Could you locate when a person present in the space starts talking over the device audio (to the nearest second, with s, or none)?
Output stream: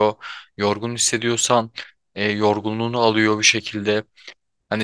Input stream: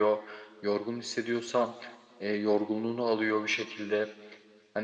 none